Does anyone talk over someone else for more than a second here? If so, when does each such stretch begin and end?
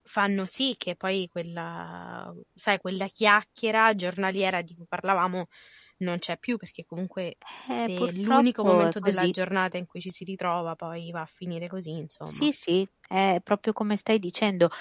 7.7-9.3

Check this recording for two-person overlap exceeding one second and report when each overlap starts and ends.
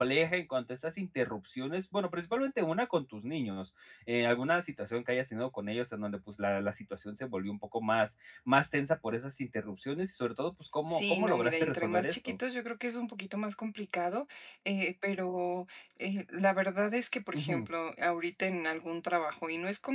10.9-12.3

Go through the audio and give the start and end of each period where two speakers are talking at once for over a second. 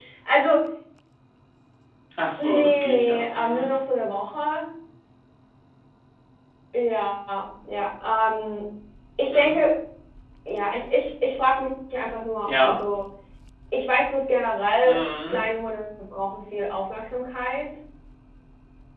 2.4-3.7

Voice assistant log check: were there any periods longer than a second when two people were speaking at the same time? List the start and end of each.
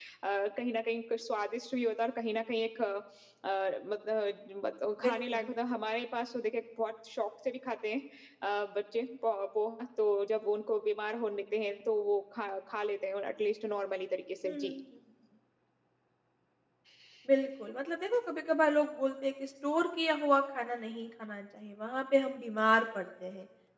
none

